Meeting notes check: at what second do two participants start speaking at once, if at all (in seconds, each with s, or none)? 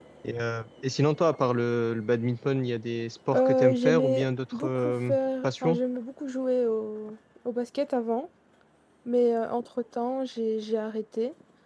3.3 s